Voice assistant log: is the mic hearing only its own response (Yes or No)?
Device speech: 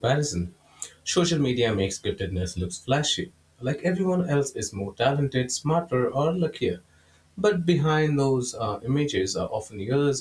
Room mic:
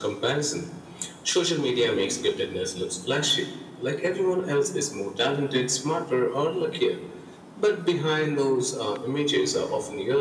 Yes